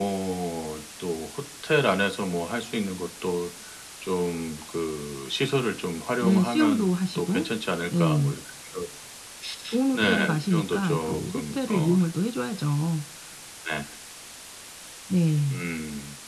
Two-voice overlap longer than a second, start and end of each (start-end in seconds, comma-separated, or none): 6.2-7.5, 9.9-11.9